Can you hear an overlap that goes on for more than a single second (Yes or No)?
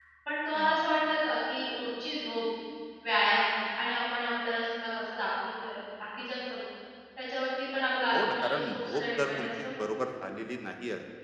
Yes